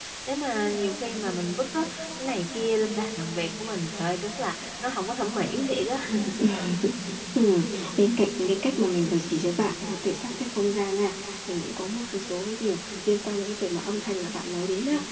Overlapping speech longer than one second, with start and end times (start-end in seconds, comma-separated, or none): none